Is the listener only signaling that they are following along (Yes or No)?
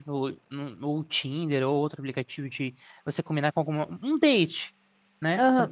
No